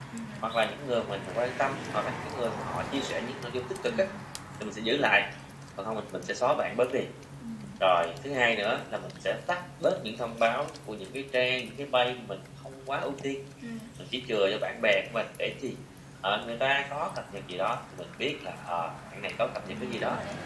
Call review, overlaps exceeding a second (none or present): none